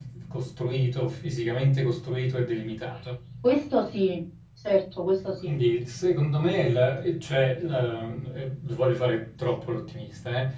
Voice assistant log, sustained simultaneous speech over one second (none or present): none